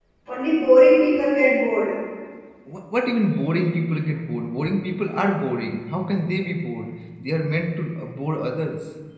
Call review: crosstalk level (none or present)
none